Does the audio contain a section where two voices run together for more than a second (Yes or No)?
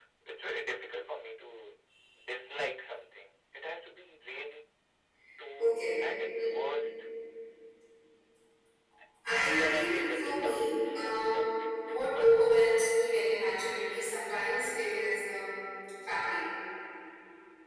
Yes